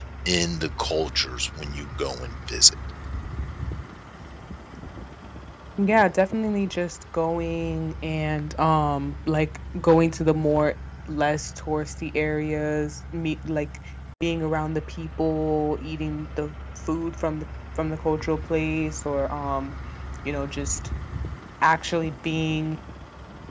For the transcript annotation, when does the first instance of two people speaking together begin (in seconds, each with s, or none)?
none